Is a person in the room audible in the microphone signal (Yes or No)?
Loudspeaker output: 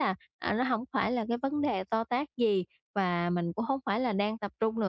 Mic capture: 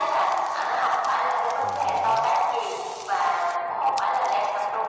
Yes